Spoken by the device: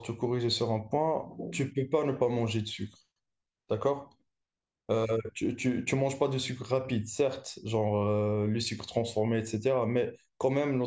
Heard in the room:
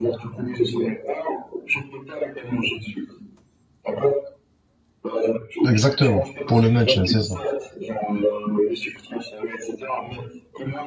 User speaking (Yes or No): Yes